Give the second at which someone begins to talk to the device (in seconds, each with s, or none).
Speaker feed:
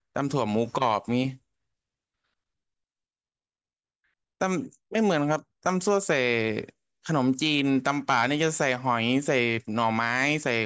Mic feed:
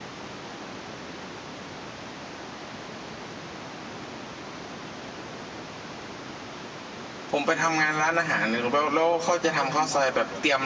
7.3 s